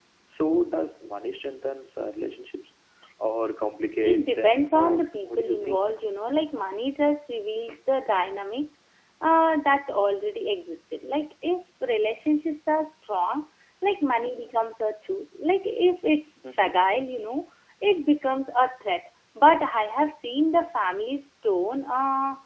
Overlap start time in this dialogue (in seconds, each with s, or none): 4.0 s